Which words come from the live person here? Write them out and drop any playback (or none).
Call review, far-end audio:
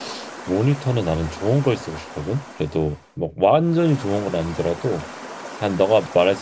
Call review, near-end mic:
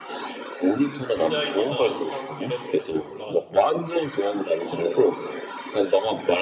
디자인이나 영상 이런 쪽은 잘 몰라가지고.